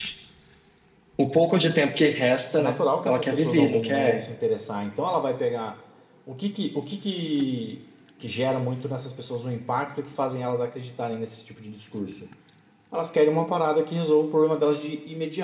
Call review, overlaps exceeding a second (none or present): present